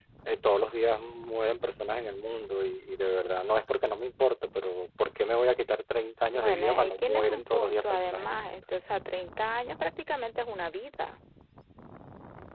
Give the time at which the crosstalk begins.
6 s

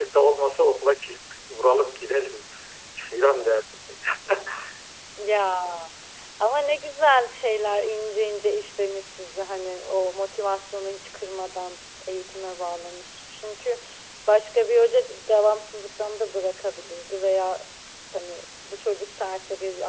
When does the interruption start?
none

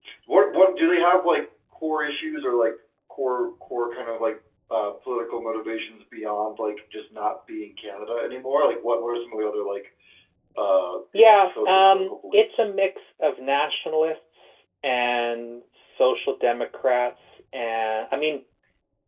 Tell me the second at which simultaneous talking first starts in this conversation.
11 s

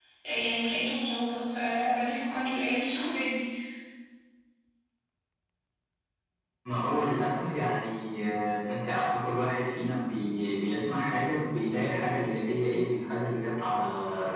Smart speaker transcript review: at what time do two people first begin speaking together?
none

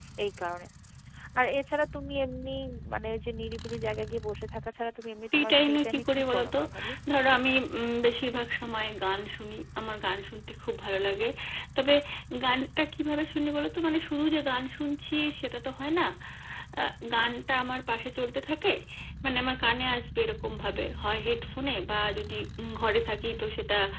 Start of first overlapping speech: 5 s

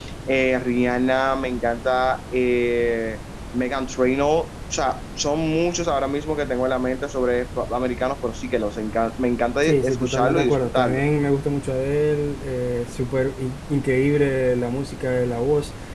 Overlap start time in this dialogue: 10 s

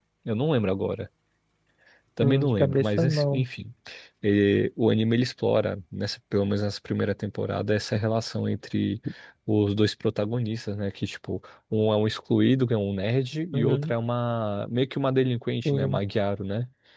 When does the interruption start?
2 s

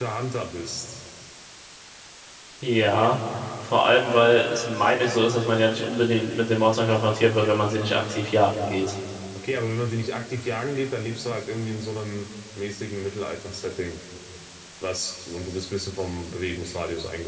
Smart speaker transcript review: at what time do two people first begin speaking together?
none

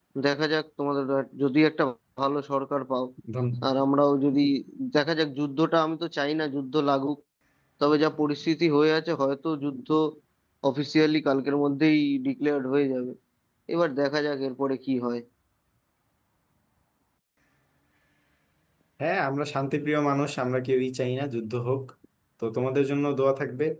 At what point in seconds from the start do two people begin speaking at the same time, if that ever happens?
none

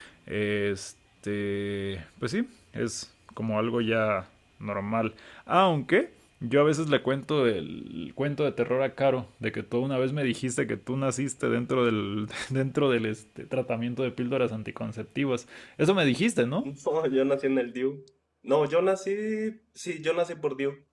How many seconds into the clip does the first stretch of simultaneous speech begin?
none

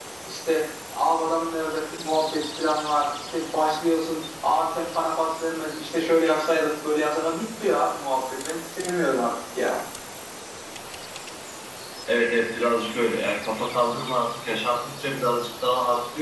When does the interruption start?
none

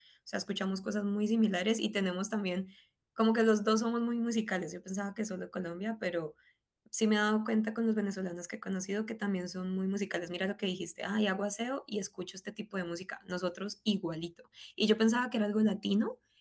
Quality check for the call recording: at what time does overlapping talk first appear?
none

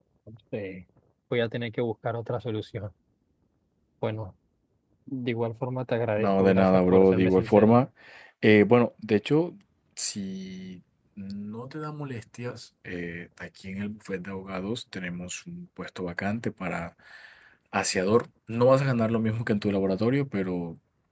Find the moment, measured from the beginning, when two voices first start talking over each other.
6 s

